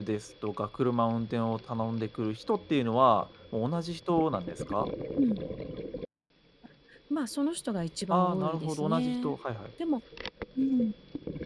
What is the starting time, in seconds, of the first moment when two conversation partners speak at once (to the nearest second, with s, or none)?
8 s